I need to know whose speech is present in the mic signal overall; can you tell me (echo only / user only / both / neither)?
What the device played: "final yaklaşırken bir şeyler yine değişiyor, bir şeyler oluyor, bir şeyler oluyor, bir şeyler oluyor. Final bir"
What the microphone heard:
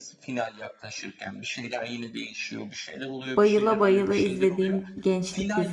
both